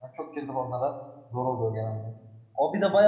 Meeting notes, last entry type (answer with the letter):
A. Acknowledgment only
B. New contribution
A